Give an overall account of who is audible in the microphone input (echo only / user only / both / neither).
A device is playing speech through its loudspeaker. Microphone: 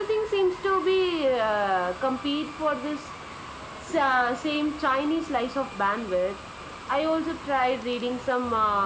echo only